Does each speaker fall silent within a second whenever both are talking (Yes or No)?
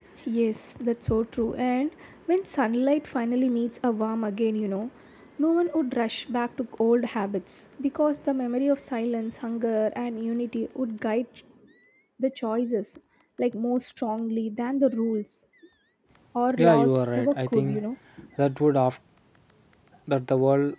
No